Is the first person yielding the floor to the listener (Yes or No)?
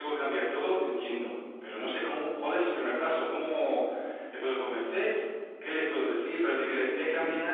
No